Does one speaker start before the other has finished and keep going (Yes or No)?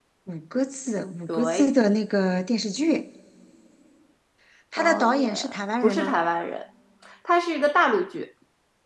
Yes